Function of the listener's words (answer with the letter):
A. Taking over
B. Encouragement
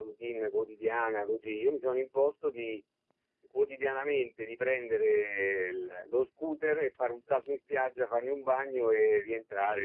B